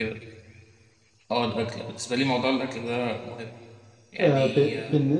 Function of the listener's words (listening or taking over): taking over